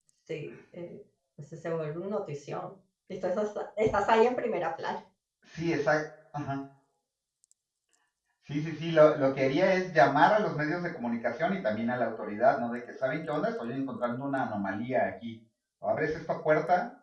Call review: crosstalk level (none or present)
none